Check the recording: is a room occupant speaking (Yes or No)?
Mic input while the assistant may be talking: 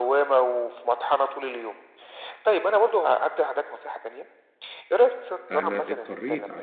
Yes